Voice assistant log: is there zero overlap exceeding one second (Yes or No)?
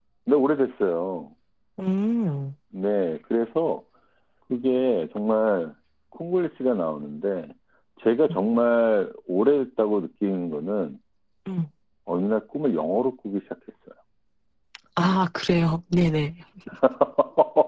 Yes